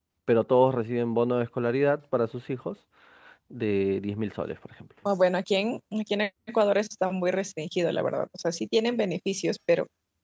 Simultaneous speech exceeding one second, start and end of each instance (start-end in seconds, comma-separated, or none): none